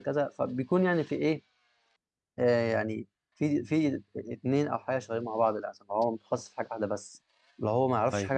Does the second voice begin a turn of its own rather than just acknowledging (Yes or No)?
Yes